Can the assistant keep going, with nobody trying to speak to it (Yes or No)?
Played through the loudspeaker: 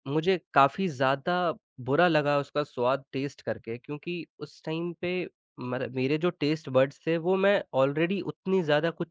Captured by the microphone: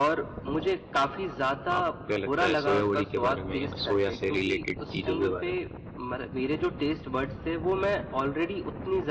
No